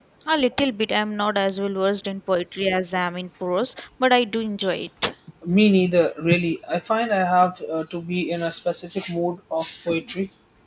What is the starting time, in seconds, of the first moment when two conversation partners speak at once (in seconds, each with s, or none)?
none